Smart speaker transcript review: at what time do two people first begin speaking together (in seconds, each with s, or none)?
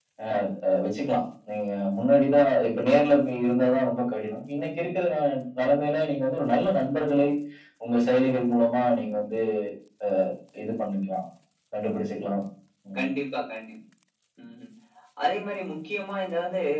none